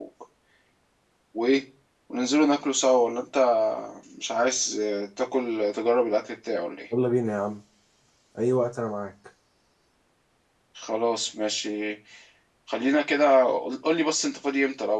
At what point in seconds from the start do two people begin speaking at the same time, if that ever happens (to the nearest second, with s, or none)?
none